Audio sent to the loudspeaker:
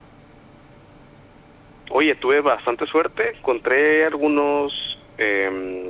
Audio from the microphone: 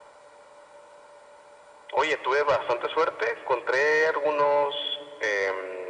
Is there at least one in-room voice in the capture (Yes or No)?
No